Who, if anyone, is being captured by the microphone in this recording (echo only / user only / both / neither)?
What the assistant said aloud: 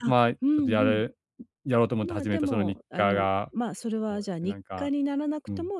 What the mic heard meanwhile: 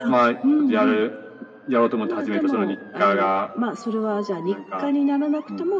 echo only